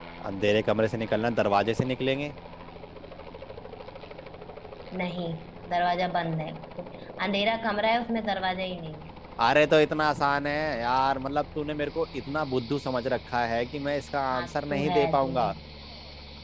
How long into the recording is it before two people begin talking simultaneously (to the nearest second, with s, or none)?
14 s